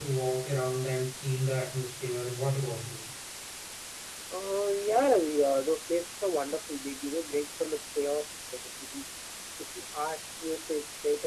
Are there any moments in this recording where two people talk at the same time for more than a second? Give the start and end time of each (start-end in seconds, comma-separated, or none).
none